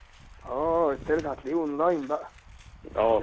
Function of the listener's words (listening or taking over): taking over